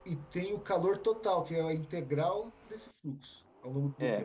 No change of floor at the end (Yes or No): No